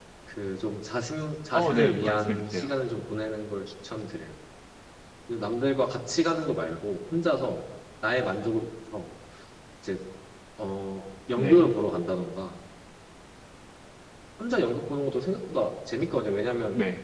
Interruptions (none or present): present